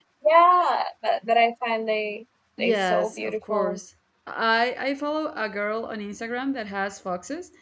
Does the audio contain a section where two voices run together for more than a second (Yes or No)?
Yes